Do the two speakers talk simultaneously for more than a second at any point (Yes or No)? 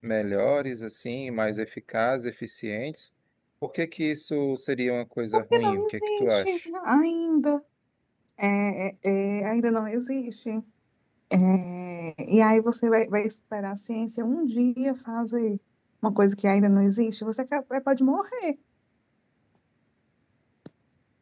Yes